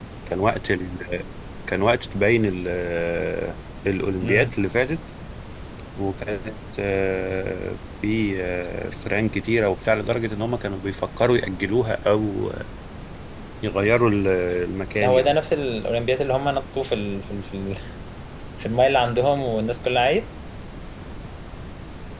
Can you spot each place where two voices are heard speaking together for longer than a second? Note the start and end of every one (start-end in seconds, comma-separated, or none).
none